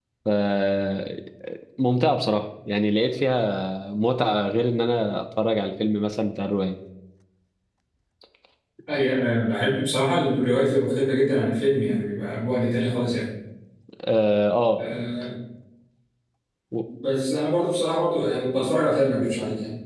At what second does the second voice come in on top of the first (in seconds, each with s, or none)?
none